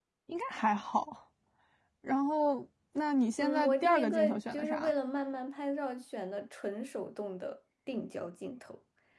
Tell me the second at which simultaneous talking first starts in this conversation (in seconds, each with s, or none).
3.4 s